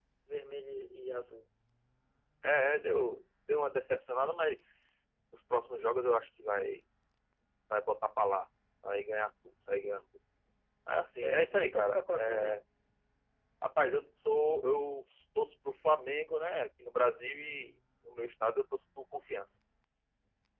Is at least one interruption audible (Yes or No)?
Yes